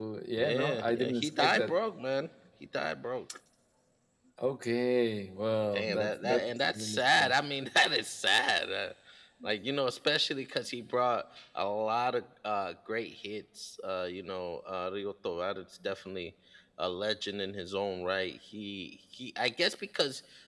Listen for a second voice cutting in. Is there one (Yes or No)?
Yes